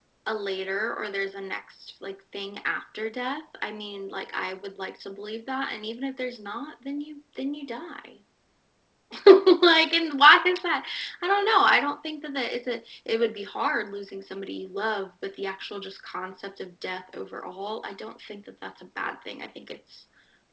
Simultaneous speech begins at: none

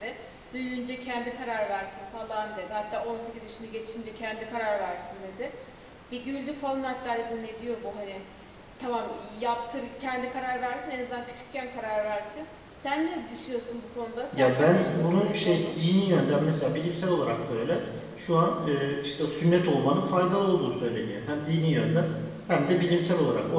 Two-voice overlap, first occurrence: 14.3 s

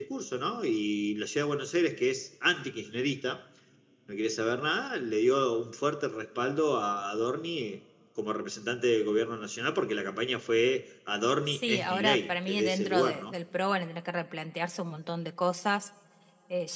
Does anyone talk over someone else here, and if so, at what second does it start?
11.5 s

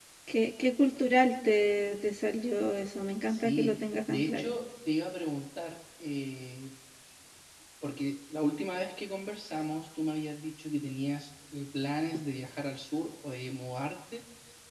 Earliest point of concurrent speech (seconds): 3.3 s

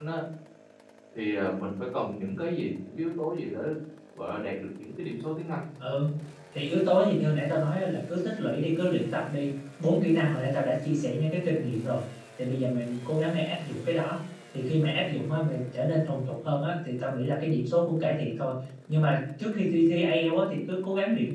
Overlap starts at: none

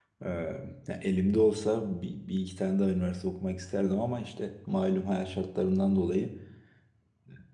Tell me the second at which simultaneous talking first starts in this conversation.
none

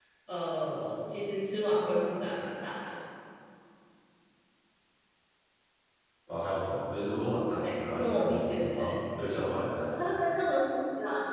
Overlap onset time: 7.6 s

